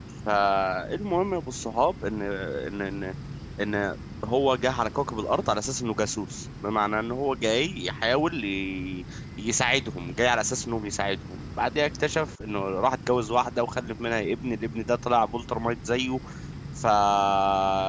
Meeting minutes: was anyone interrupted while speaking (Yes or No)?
No